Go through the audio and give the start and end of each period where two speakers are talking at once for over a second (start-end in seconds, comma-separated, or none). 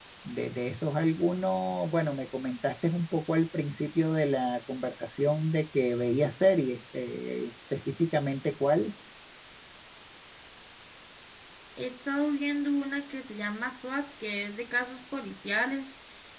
none